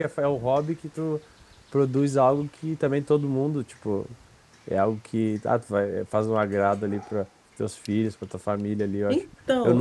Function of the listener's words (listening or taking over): listening